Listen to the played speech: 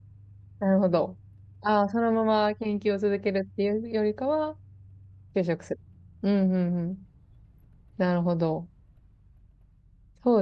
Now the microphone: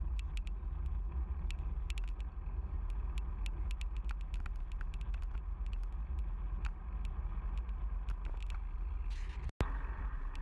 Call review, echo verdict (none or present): none